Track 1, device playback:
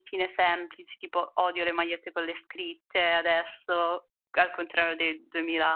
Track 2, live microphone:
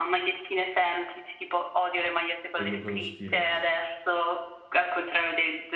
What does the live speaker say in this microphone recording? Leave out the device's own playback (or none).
quello quello stile.